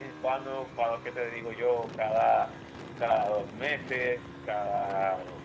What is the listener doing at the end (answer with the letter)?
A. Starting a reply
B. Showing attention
B